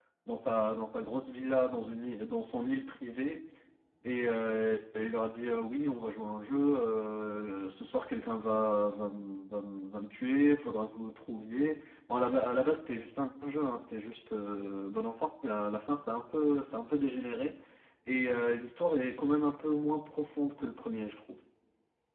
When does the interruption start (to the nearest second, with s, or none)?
none